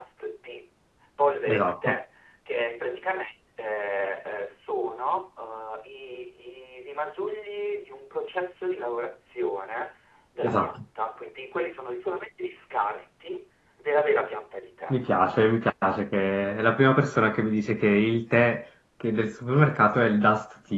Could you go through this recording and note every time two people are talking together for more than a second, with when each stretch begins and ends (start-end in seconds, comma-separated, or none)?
none